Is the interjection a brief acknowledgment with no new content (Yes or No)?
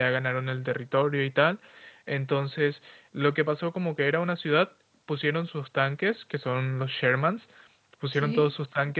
Yes